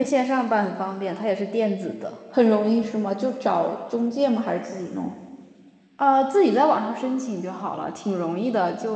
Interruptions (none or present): none